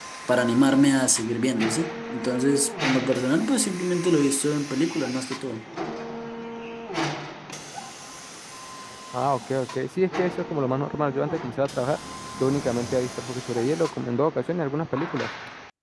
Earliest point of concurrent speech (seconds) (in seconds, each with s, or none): none